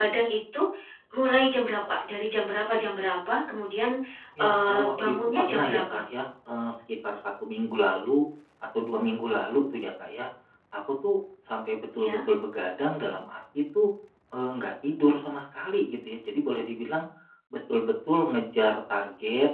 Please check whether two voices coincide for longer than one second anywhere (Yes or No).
Yes